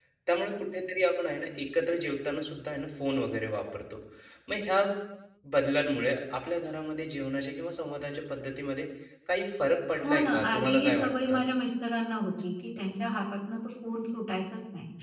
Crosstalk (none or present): present